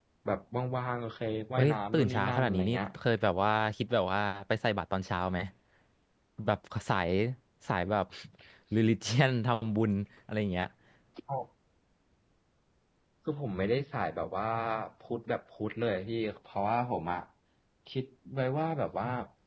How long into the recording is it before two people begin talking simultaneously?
2 s

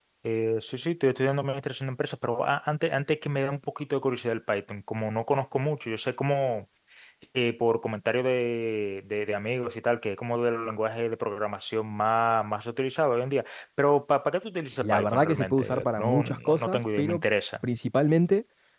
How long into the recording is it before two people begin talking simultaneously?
15 s

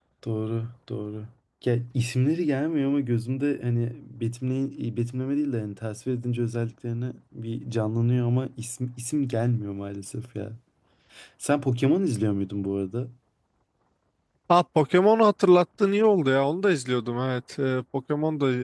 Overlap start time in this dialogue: none

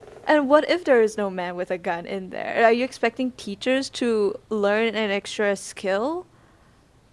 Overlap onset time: none

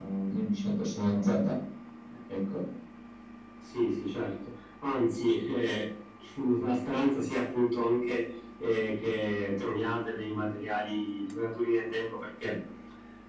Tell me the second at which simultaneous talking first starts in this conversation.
none

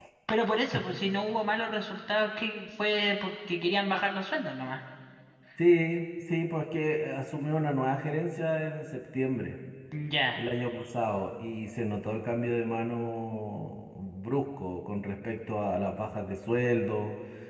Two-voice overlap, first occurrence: none

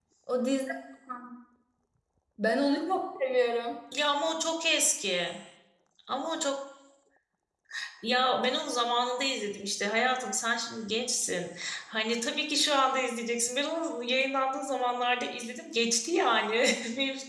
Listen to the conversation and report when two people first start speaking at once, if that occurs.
none

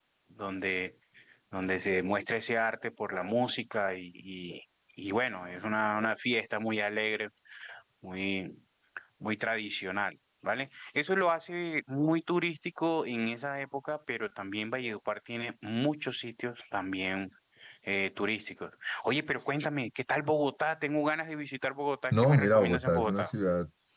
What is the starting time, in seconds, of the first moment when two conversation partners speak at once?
22 s

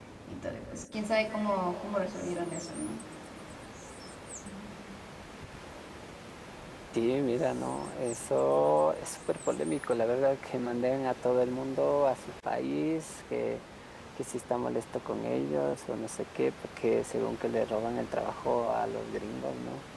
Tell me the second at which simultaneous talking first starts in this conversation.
none

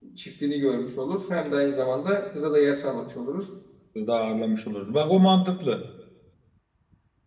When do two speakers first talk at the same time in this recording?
none

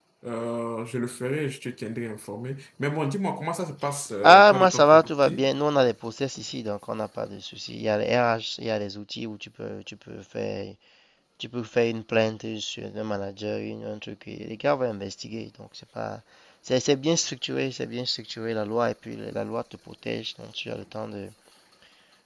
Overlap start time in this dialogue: 4 s

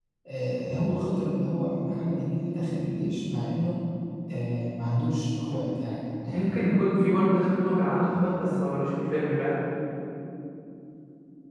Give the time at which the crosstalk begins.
none

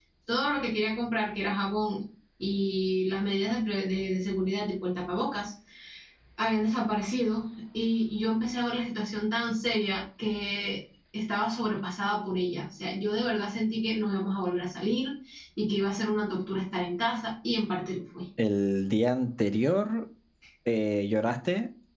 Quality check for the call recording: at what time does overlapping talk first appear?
none

